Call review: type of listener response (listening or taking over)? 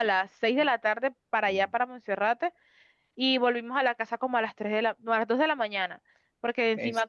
listening